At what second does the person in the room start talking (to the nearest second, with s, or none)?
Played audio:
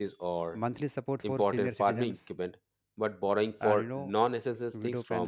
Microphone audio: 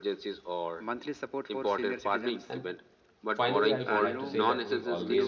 2 s